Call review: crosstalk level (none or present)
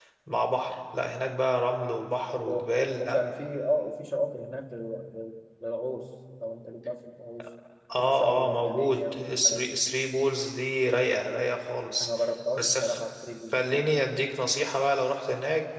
present